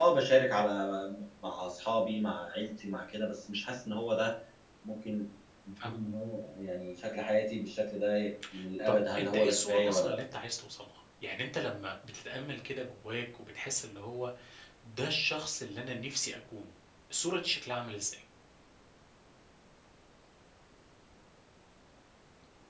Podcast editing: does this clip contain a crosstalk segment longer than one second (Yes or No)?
Yes